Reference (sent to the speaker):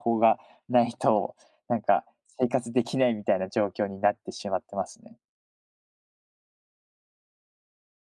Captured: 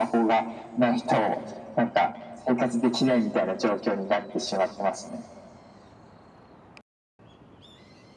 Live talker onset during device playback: none

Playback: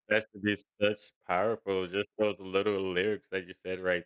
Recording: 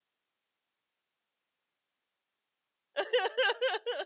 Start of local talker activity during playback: 3.0 s

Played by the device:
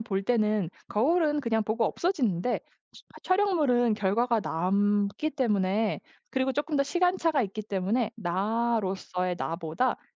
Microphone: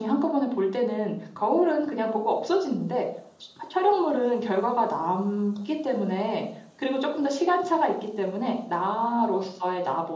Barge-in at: none

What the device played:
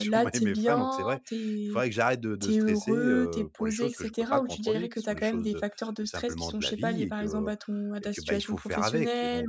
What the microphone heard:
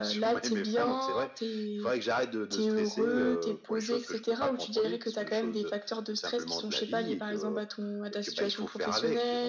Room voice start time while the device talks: none

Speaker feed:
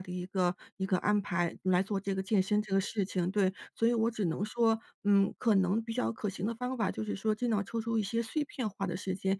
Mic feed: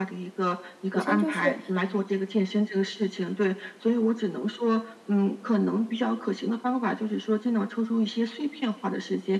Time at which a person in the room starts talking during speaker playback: 0.9 s

